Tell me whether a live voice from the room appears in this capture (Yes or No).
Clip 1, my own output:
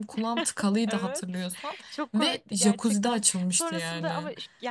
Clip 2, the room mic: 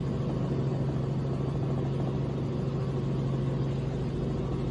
No